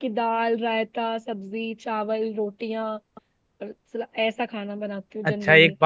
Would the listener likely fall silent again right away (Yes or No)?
No